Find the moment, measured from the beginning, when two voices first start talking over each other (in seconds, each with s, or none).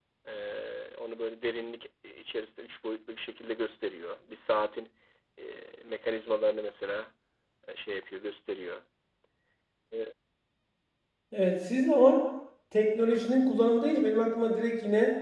none